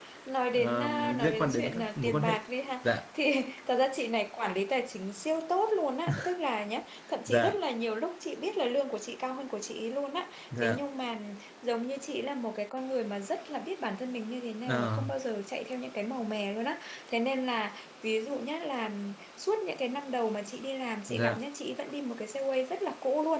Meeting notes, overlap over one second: present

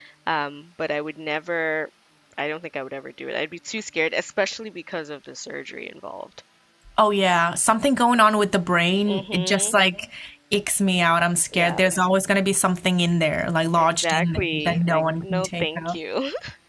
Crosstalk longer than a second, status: present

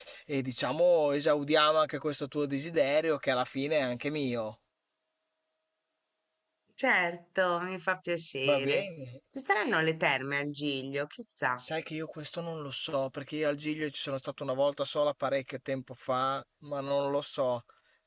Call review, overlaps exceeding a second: none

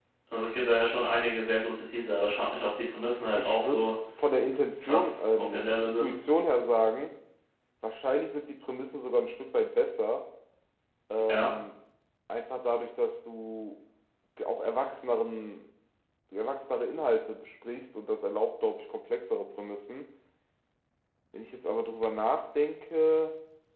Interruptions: present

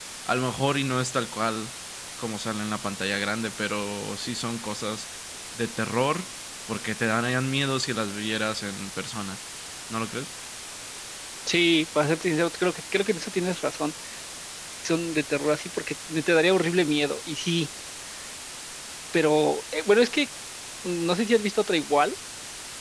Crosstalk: none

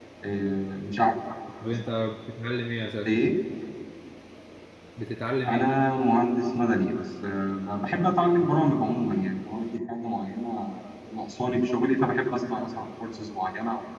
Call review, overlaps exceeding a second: none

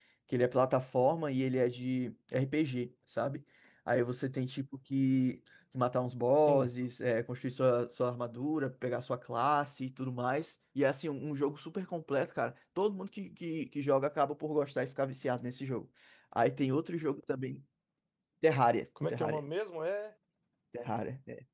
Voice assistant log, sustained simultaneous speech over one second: none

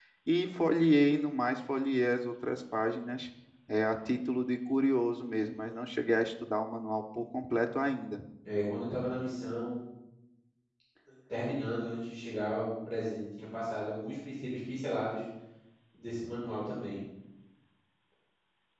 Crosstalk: none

